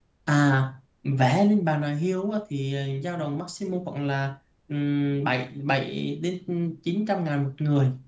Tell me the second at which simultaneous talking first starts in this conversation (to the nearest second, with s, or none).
none